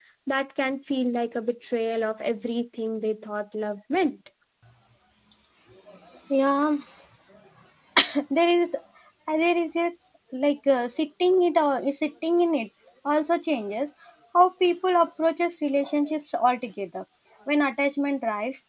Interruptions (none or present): none